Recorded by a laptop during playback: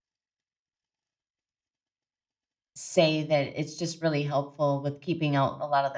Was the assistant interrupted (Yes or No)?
Yes